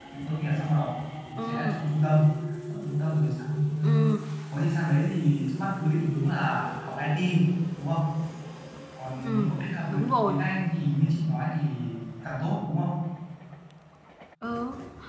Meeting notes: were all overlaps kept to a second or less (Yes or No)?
Yes